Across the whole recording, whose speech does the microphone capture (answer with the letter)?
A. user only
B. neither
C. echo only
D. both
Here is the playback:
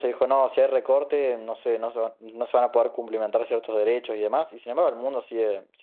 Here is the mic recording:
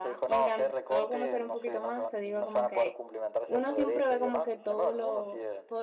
D